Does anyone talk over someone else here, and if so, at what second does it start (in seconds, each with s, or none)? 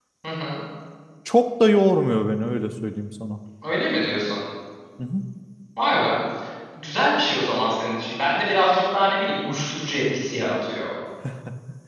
none